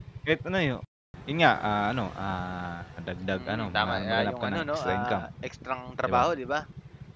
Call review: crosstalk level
present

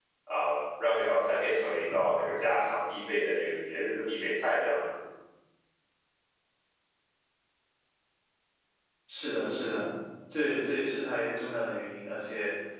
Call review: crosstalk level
none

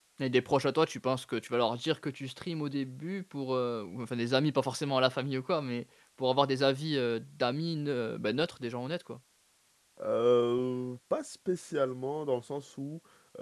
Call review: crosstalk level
none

